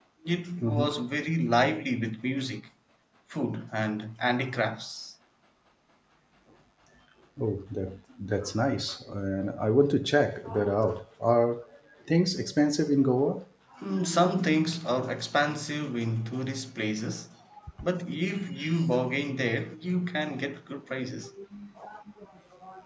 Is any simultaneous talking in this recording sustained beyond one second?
No

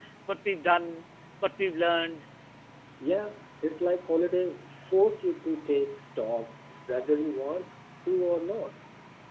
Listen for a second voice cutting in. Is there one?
No

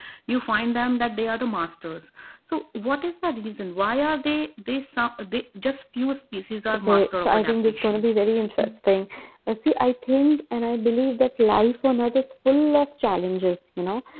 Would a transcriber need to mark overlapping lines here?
Yes, from 6.7 s

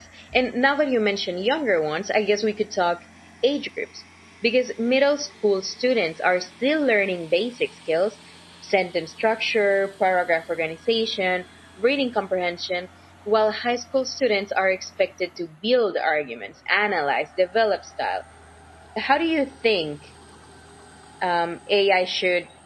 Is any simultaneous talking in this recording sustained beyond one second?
No

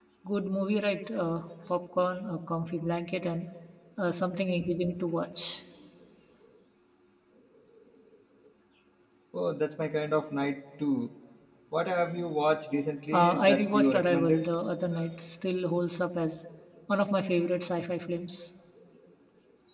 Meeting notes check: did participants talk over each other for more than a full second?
Yes, from 13.1 s

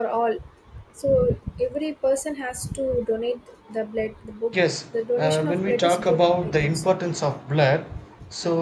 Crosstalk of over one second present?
Yes, from 5.2 s

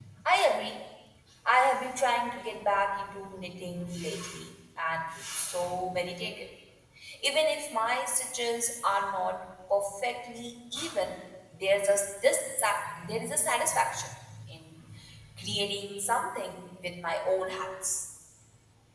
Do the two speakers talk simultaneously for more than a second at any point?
No

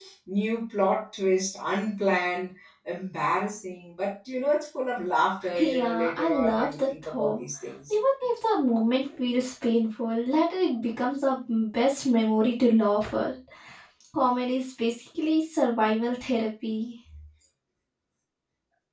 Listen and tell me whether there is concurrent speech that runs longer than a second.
Yes, from 5.5 s

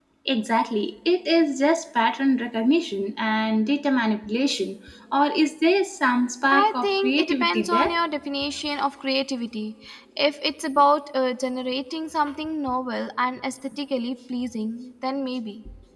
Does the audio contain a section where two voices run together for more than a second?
Yes, from 6.5 s

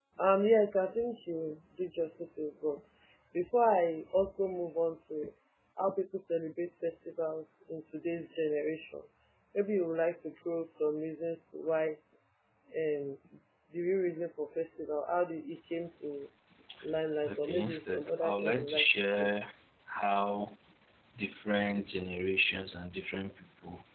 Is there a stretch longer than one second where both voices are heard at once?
Yes, from 17.3 s

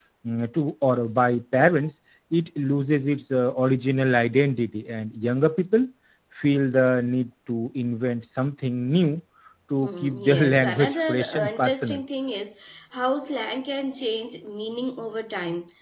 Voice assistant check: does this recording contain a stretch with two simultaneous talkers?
Yes, from 9.8 s

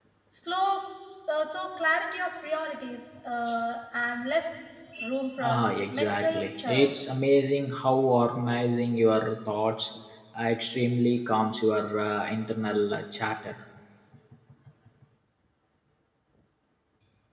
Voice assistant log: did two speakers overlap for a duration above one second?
Yes, from 5.4 s

